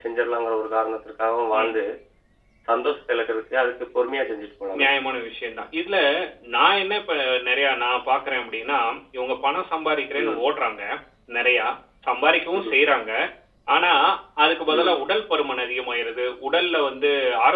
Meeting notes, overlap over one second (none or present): none